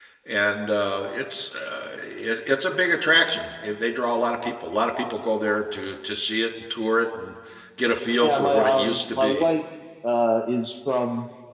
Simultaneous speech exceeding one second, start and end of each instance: 8.2-9.4

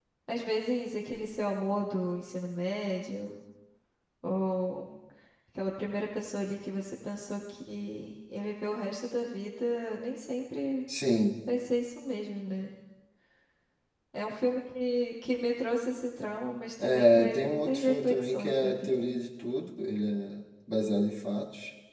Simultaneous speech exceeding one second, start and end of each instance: 16.8-18.9

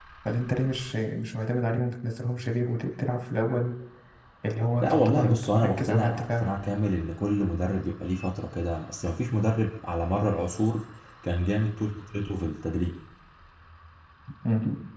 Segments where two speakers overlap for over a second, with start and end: 4.8-6.5

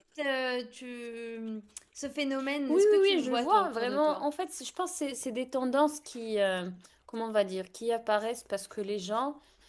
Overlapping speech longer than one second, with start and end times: 2.7-4.2

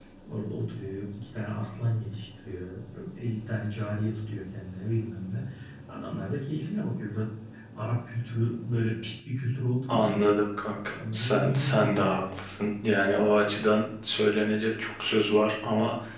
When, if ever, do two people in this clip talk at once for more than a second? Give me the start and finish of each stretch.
10.9-12.3

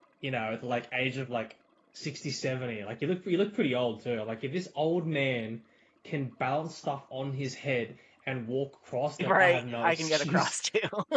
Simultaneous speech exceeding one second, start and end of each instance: 9.3-10.6

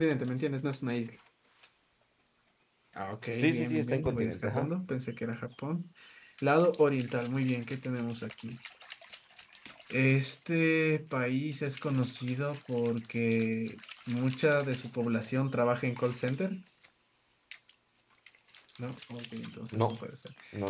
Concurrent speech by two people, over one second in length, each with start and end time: 3.4-4.7

